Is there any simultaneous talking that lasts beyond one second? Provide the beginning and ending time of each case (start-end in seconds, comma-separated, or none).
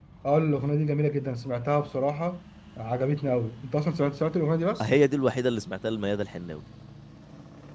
none